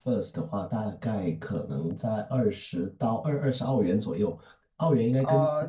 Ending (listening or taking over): listening